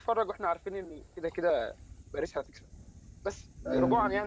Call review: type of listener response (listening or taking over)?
listening